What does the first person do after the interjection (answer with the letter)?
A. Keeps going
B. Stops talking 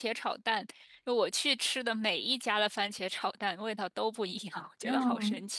B